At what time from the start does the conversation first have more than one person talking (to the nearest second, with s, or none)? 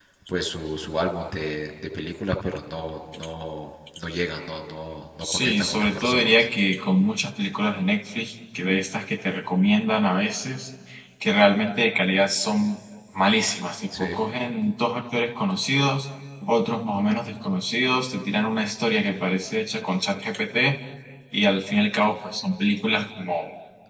5 s